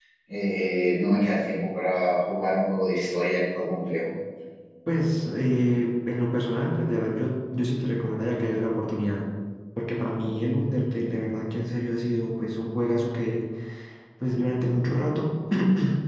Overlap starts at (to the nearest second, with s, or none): none